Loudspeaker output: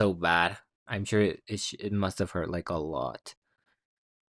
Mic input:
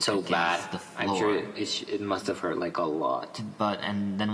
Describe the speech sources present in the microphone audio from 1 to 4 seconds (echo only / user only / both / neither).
both